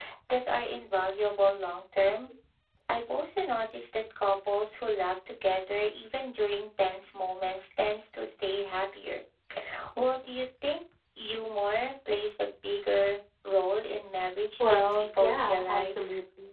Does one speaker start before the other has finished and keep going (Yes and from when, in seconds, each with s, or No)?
Yes, from 14.6 s